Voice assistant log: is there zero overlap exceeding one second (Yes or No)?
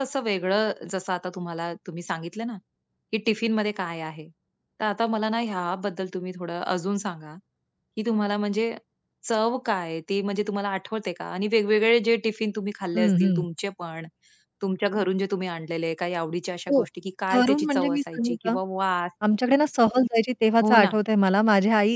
No